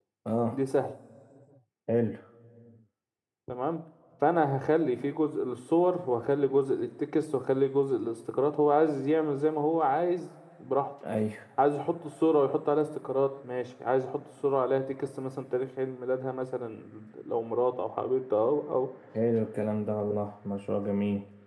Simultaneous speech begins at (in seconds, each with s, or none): none